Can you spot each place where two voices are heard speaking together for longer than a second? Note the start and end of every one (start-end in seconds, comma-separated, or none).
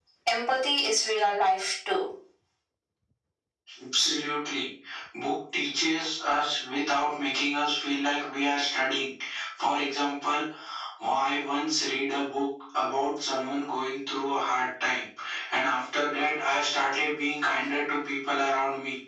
none